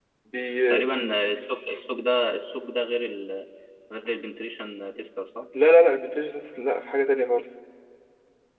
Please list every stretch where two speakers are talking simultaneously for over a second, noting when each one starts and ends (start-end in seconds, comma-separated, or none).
none